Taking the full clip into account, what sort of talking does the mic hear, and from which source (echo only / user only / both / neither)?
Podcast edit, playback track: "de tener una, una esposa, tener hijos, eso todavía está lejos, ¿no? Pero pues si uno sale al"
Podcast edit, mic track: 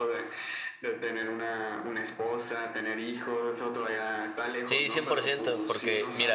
both